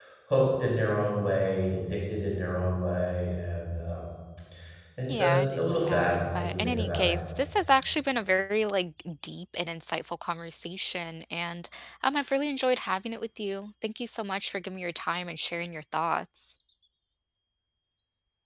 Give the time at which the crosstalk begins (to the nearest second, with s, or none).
5 s